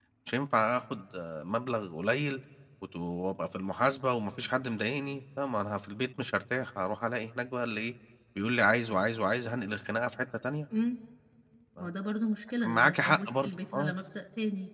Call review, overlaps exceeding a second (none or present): present